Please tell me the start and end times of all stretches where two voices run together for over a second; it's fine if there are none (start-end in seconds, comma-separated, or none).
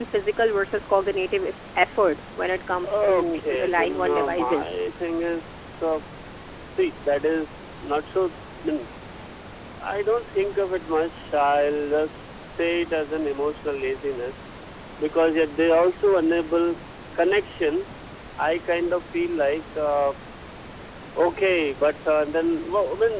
2.8-4.6